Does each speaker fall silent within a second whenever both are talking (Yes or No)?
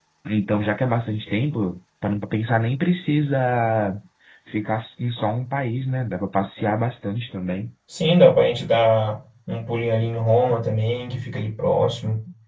Yes